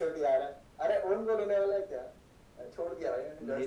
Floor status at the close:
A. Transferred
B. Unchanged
B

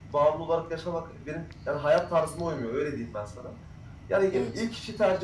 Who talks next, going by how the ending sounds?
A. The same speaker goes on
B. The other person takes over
A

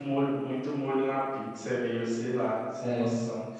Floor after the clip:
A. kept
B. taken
B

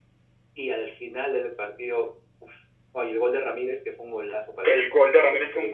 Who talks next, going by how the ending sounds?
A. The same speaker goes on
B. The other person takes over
B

